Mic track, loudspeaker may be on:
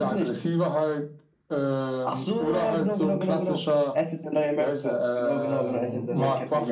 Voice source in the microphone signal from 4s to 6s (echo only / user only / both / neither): echo only